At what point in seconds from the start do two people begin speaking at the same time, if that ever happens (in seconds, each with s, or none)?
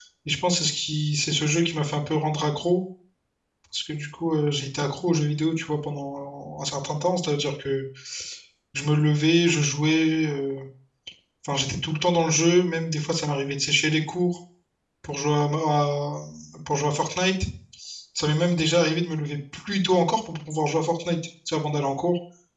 none